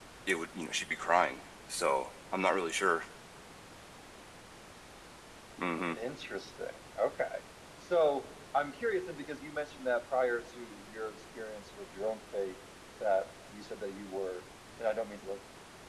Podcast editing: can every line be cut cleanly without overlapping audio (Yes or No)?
Yes